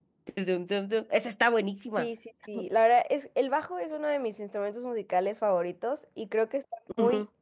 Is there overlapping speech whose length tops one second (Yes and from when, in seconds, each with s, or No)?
No